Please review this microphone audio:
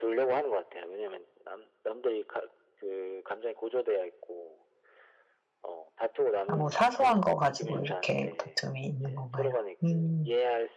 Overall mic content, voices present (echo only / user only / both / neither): both